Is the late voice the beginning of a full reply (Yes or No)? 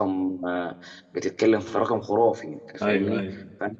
No